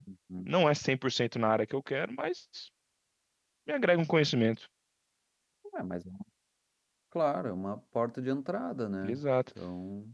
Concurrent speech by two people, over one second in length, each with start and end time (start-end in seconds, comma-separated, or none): none